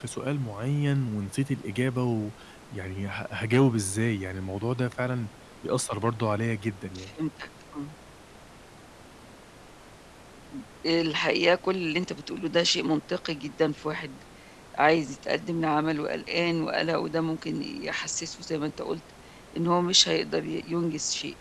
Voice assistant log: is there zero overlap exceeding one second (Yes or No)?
Yes